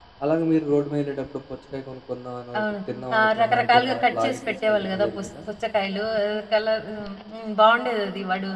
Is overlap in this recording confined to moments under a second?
No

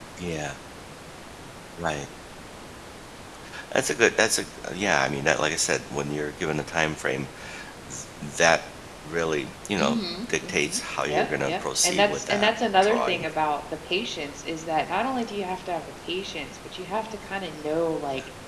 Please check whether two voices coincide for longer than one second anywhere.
Yes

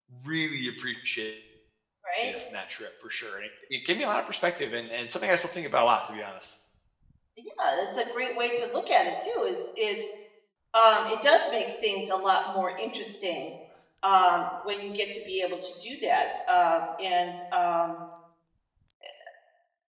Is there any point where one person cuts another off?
No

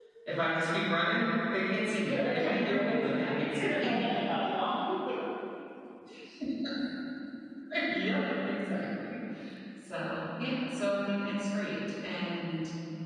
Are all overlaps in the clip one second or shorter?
No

